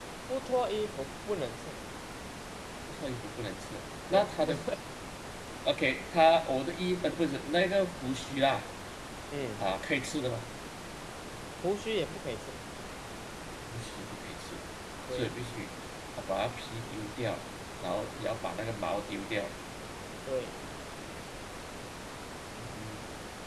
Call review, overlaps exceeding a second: none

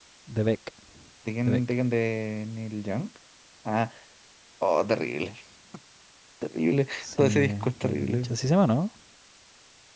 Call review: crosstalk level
present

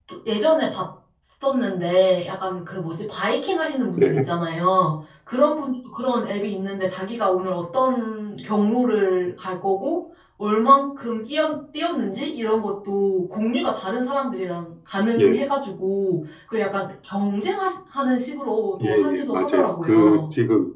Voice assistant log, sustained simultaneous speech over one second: present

